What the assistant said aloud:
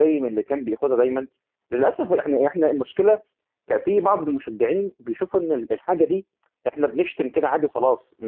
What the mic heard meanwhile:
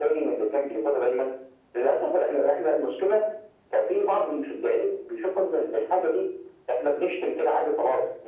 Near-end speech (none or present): none